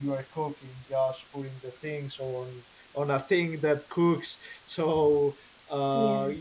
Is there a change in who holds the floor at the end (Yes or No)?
No